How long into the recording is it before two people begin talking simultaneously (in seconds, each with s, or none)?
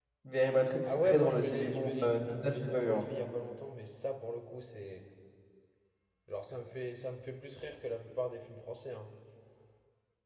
0.8 s